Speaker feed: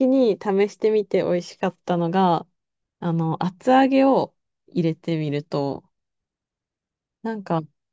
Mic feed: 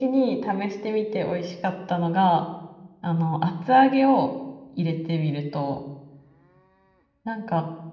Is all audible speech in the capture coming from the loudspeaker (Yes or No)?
Yes